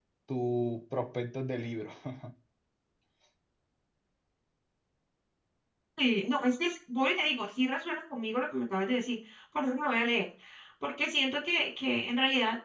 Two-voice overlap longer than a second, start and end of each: none

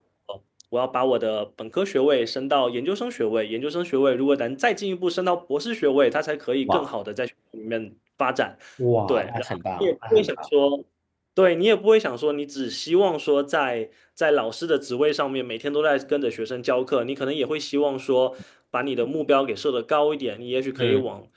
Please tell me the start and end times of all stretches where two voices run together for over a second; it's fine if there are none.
9.1-10.4

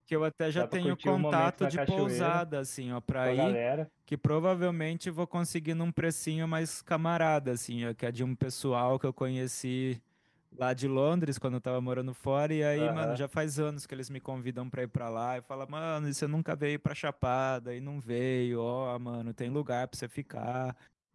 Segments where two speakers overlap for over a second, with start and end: 0.6-2.4

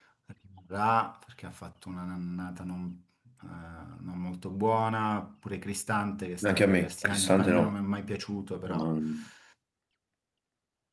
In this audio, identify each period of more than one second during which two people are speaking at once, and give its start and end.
6.4-7.7

